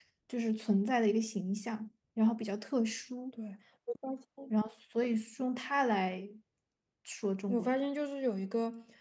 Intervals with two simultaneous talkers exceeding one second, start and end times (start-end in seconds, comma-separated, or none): none